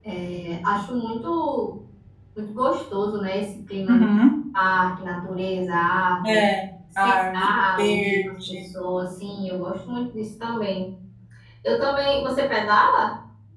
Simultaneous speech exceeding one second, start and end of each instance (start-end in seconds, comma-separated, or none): 7.0-8.7